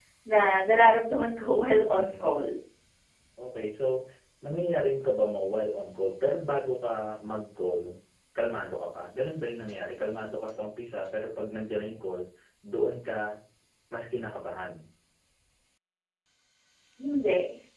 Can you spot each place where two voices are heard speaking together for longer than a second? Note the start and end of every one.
none

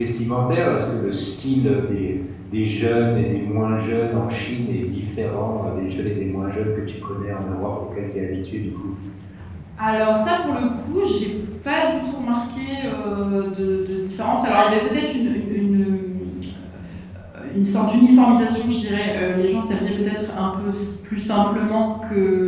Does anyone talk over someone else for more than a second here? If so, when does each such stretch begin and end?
none

